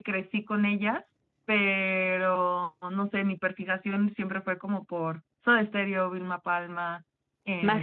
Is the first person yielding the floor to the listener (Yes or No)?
No